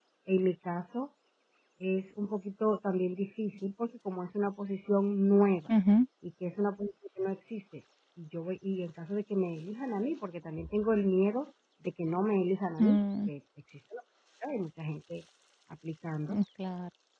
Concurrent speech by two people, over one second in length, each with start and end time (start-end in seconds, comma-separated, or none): none